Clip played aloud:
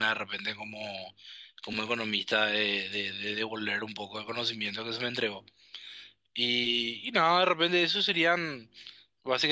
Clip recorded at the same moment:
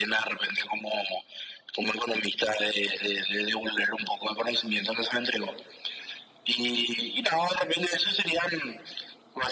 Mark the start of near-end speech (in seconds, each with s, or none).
none